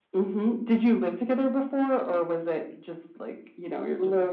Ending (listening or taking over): taking over